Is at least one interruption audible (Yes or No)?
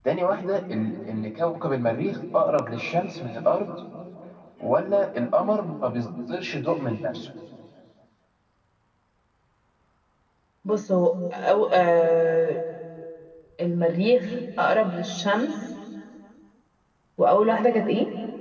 No